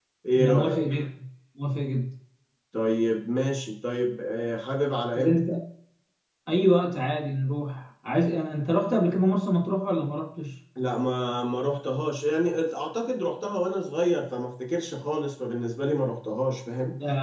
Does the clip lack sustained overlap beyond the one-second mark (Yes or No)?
Yes